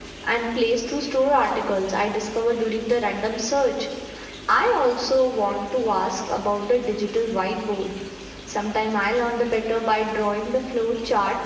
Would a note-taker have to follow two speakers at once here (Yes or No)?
No